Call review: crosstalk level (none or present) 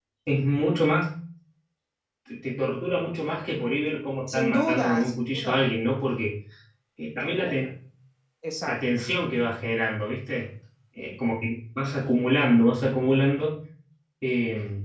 present